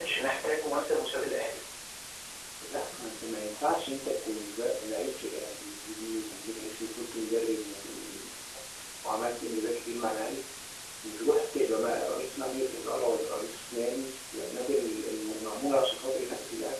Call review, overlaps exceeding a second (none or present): none